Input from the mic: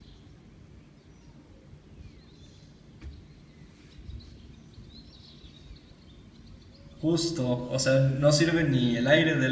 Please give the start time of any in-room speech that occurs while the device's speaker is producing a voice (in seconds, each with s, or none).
7.0 s